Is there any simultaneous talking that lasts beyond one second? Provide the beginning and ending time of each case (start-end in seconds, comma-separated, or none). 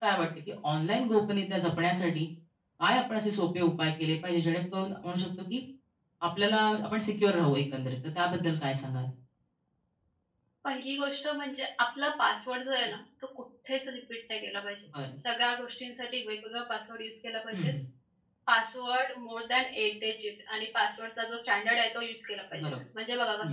none